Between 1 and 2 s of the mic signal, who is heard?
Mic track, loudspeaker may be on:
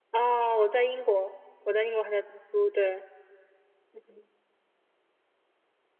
echo only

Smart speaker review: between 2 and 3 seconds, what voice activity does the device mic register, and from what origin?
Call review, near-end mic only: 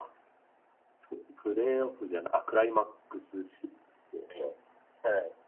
echo only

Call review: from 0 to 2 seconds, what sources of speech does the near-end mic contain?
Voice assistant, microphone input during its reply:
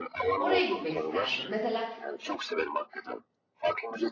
both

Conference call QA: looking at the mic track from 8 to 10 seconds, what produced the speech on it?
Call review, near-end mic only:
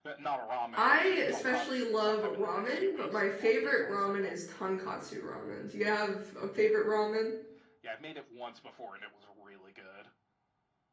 echo only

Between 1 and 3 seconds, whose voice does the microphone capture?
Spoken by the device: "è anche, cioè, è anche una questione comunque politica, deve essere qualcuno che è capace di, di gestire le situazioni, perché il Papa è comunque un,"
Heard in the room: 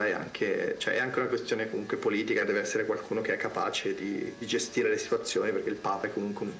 echo only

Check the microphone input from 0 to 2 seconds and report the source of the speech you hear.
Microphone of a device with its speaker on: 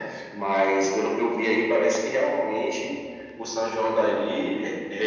echo only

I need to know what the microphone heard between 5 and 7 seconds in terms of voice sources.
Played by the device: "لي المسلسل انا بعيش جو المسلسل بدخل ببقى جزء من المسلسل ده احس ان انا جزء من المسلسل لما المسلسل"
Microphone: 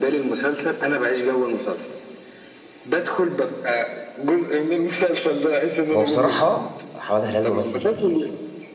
both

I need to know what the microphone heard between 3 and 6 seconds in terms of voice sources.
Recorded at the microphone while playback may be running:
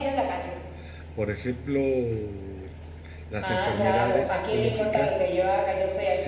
both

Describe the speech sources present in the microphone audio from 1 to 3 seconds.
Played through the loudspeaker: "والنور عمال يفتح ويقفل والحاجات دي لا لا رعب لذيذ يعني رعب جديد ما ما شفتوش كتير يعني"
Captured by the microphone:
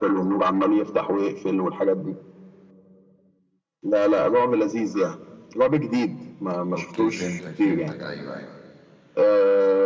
echo only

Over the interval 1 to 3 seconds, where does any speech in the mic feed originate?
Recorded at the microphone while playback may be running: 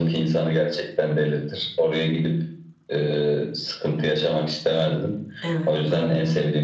echo only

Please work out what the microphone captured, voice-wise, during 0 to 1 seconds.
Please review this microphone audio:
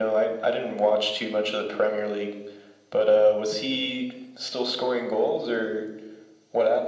echo only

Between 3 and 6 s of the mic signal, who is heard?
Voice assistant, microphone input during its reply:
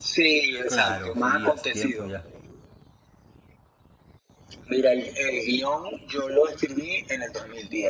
echo only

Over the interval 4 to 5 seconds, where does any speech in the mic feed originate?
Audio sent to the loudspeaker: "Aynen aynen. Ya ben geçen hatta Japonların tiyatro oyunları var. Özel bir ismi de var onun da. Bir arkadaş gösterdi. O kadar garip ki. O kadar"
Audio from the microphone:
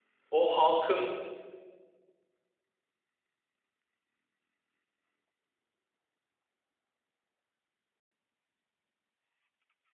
neither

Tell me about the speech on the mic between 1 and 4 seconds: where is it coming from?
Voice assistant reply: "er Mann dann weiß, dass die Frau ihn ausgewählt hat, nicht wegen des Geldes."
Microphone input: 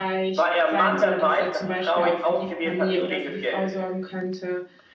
both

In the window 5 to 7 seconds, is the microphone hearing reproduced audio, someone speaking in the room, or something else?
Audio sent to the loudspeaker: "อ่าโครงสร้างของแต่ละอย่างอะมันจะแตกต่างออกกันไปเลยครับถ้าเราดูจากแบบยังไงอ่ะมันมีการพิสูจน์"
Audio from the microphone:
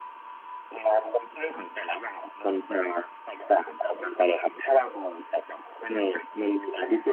echo only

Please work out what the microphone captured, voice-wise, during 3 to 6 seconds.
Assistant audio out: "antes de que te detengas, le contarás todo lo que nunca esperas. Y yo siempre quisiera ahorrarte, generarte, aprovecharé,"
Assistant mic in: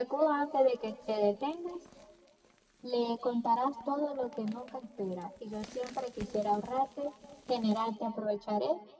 echo only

